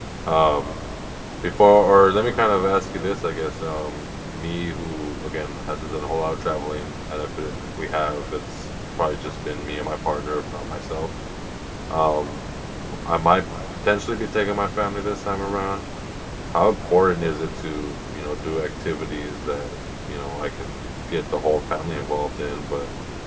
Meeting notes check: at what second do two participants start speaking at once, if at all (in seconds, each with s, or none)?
none